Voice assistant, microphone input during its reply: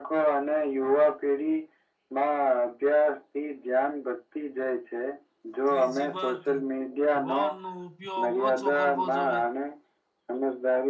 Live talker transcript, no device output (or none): ત્રીજી વાત વન નો ઉપયોગ ઓછો કરવો જોવે.